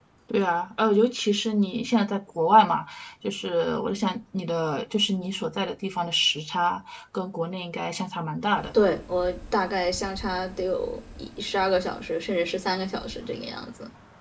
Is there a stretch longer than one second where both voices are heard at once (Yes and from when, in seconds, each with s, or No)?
No